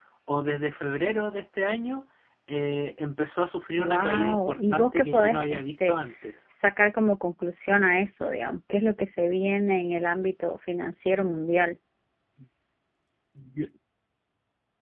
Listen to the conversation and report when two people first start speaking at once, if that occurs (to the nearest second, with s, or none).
4 s